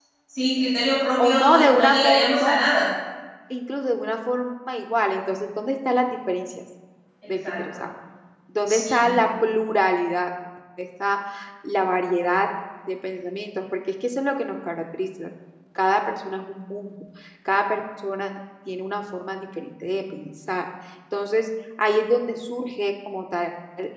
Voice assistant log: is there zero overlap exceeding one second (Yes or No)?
No